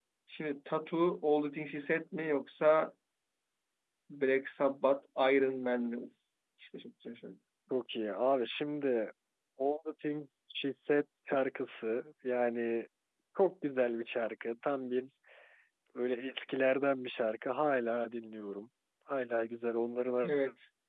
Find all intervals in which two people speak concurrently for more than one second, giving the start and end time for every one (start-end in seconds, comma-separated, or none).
none